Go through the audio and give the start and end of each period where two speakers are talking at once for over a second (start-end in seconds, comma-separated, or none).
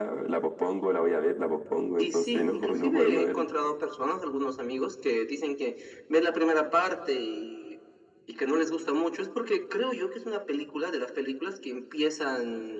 2.0-3.5